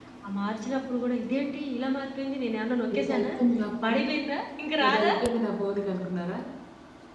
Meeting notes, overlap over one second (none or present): none